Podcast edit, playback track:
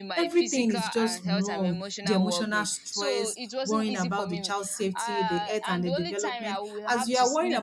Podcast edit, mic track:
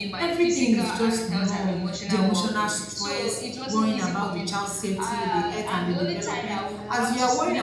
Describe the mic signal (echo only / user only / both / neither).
echo only